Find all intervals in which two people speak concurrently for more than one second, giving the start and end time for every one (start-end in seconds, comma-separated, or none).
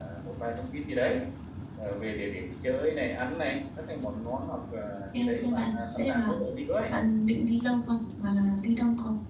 5.1-6.4